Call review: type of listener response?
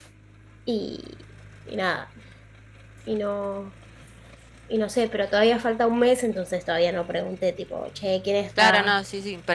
taking over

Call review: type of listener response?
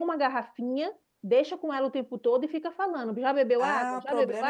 taking over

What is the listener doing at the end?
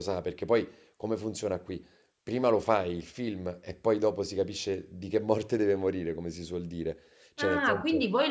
taking over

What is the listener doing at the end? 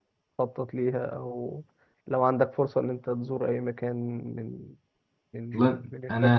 taking over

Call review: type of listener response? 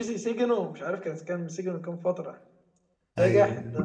listening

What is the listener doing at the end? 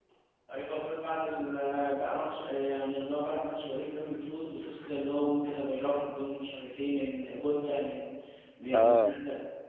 listening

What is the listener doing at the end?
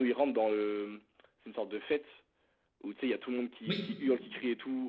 listening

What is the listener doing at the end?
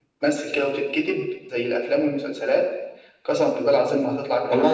taking over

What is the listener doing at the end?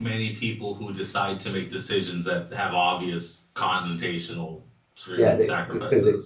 taking over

